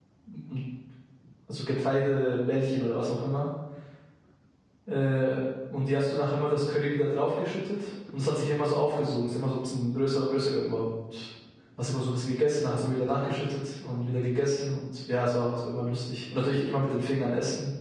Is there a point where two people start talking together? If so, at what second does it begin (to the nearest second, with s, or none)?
none